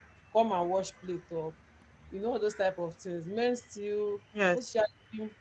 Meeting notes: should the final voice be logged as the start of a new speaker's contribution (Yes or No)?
No